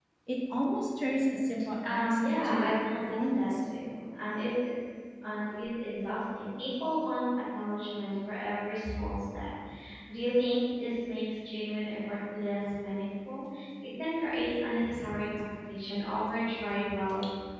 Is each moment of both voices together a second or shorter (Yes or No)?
No